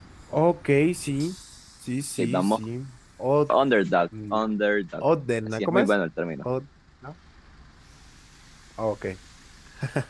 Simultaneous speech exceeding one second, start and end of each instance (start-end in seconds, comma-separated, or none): none